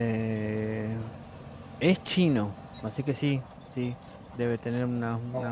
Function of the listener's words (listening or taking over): taking over